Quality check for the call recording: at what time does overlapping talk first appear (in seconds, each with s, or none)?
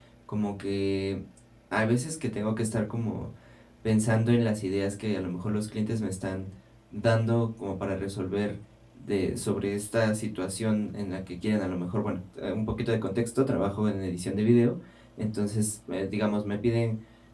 none